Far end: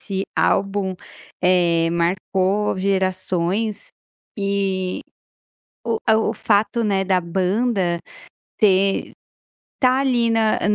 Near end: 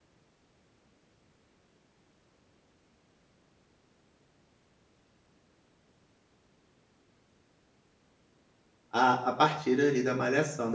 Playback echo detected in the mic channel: No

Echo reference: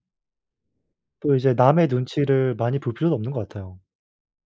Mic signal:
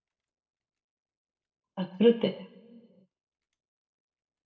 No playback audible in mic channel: Yes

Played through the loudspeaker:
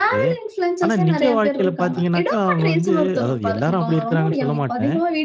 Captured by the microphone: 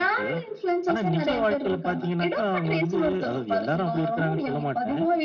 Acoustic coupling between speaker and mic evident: Yes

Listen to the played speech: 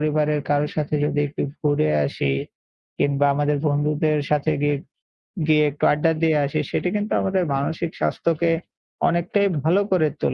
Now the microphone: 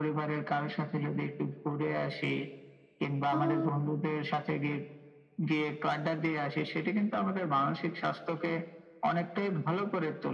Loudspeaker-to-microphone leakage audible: Yes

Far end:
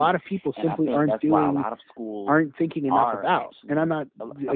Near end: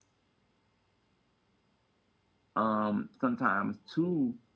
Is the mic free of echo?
Yes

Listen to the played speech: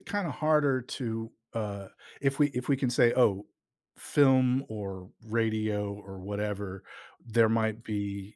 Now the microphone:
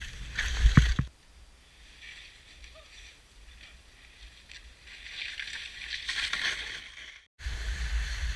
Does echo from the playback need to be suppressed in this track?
No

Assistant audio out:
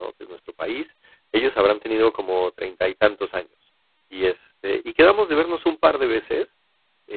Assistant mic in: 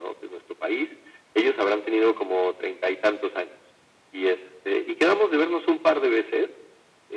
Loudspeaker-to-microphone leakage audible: Yes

